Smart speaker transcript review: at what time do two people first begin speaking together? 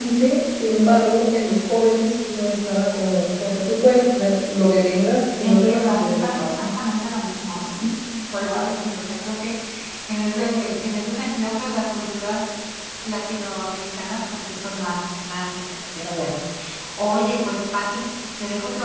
5.4 s

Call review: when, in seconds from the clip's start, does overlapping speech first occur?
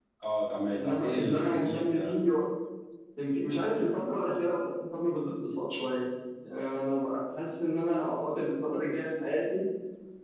0.7 s

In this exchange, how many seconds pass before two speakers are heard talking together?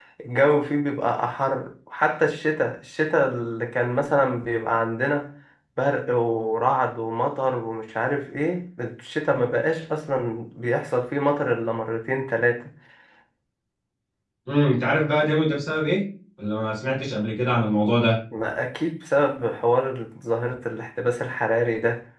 none

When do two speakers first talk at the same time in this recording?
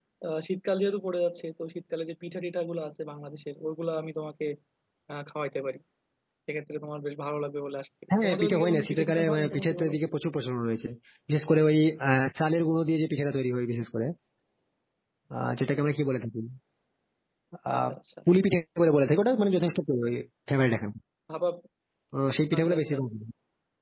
8.2 s

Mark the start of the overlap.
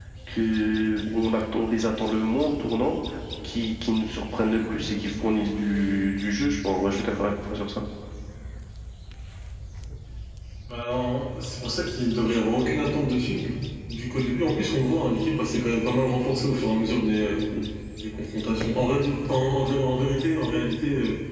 none

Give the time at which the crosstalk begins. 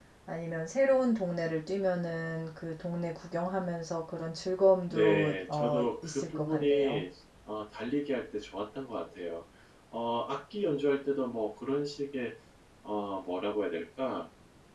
4.9 s

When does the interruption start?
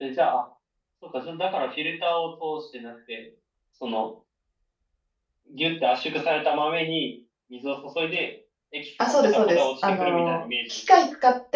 9.0 s

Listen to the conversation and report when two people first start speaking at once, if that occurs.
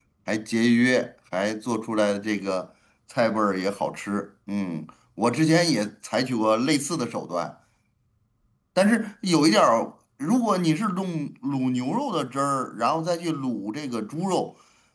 none

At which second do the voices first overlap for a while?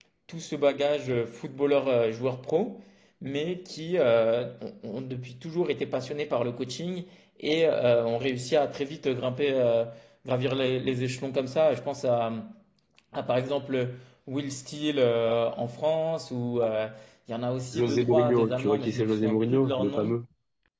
17.7 s

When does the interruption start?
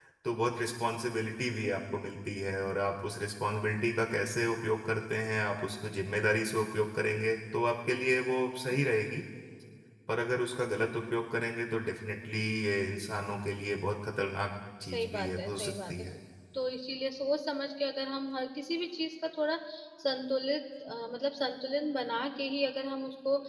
14.8 s

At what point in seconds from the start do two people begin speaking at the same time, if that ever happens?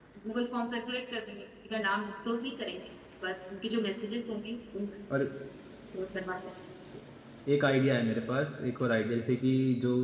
none

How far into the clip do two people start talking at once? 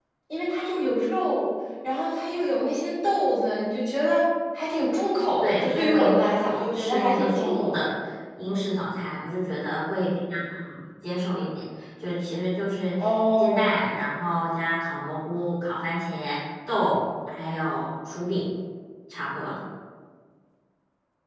5.4 s

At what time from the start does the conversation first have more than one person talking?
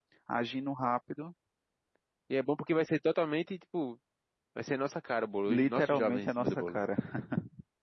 5.5 s

